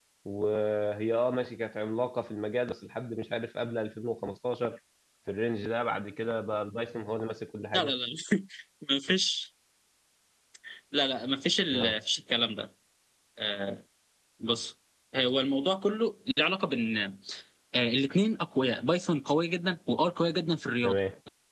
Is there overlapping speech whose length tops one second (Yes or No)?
No